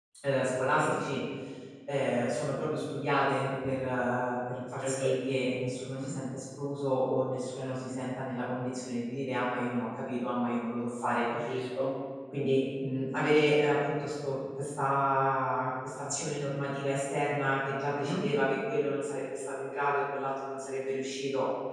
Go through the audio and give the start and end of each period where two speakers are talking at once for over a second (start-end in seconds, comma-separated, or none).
4.8-6.1